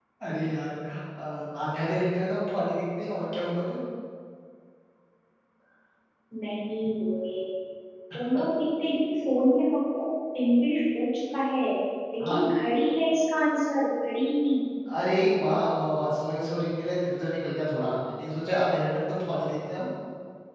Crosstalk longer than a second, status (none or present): none